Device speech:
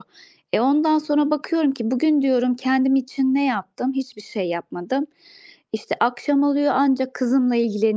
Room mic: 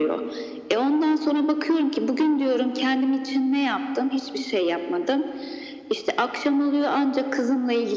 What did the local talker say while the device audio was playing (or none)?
none